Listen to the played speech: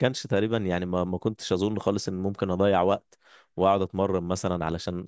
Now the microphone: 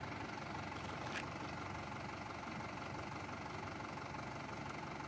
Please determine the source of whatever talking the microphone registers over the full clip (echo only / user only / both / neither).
neither